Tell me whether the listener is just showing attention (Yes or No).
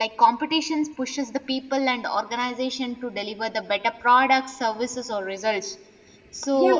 No